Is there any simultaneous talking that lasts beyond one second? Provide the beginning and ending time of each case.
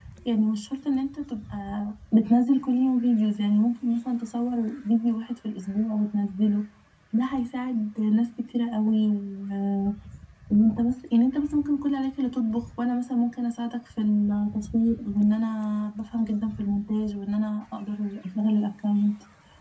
none

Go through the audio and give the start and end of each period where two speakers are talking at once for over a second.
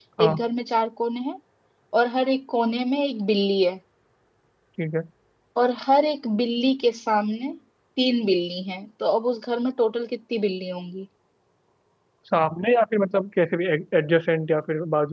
none

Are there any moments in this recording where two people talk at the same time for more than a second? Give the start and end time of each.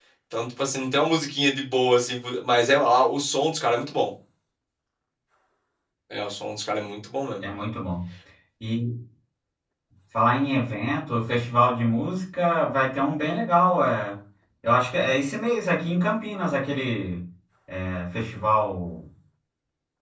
none

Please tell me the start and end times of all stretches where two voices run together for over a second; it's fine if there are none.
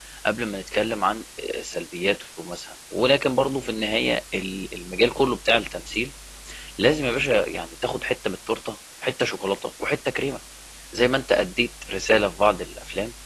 none

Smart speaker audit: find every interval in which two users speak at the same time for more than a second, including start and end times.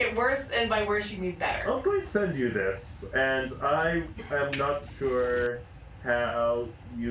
none

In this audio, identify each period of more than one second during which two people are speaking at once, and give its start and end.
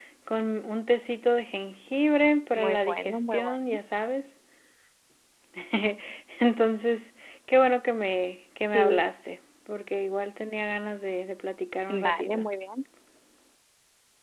2.5-3.8

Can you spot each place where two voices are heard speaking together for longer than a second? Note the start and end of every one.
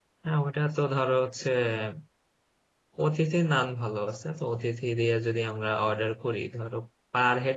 none

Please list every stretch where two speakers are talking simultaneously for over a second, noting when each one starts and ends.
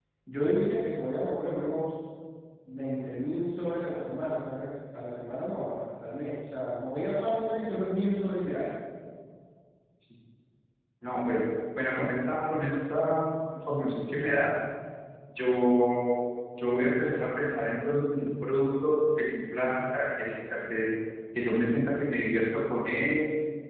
none

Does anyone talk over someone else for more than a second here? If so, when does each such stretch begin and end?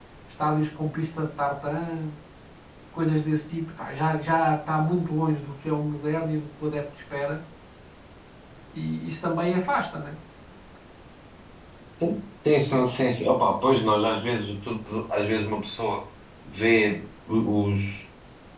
none

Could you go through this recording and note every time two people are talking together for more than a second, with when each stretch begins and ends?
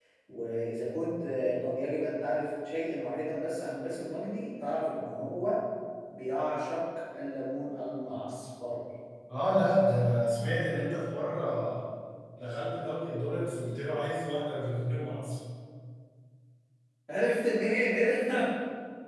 none

